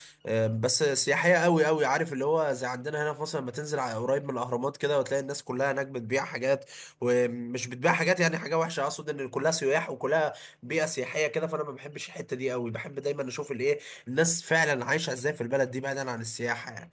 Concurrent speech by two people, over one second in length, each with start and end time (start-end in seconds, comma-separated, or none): none